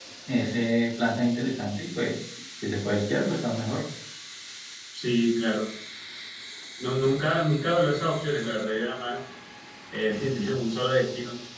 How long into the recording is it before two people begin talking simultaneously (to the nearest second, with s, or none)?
none